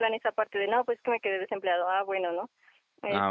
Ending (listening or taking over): taking over